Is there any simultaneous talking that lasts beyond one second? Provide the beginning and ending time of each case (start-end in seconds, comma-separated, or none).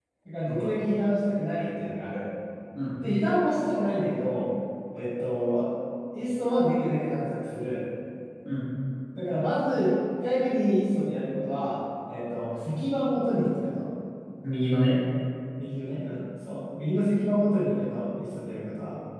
none